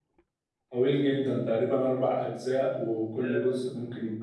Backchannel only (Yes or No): Yes